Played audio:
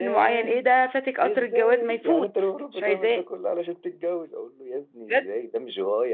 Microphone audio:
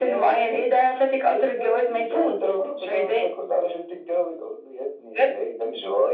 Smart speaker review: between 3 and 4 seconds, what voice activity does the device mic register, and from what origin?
echo only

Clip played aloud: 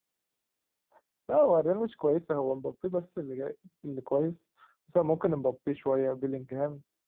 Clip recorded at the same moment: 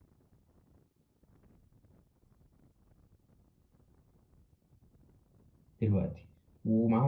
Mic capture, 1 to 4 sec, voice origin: neither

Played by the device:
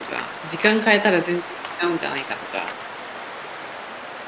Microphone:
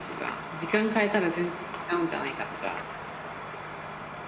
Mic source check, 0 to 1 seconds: echo only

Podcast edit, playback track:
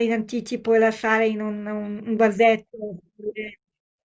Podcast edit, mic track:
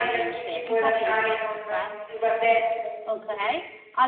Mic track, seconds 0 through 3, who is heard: both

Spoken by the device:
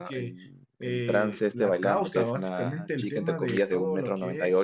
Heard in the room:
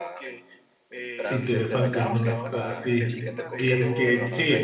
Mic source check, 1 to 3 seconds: both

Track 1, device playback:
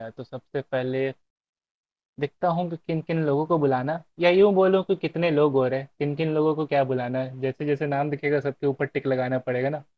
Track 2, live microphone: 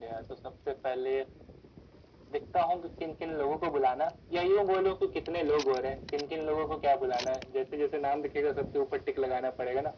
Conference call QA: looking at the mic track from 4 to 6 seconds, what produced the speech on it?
echo only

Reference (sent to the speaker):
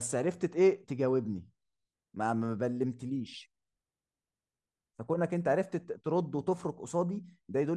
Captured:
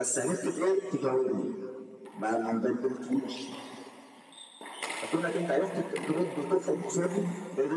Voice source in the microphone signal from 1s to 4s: echo only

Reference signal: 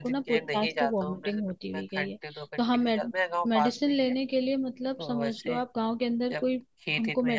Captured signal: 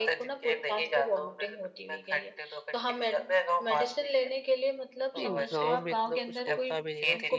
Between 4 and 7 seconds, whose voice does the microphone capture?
both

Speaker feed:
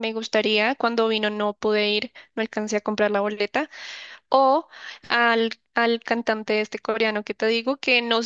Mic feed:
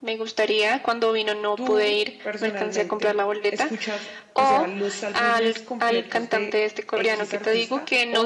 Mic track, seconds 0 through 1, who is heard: echo only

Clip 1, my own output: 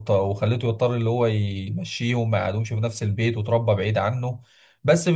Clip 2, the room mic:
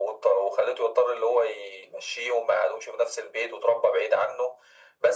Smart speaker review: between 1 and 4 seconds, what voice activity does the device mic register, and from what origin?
echo only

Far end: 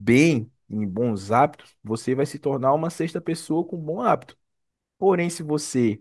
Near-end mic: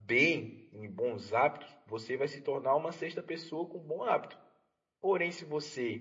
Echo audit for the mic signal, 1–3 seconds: echo only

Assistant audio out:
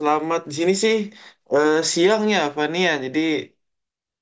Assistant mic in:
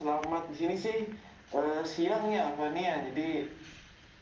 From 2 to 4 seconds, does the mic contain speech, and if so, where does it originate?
echo only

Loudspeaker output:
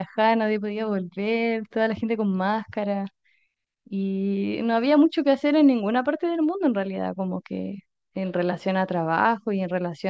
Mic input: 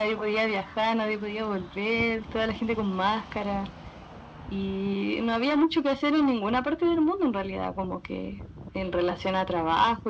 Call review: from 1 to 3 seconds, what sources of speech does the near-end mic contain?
echo only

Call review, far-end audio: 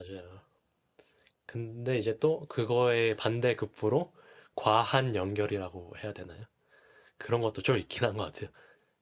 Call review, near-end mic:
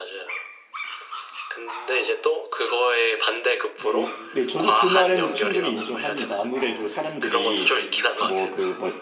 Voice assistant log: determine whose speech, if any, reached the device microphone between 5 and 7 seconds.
both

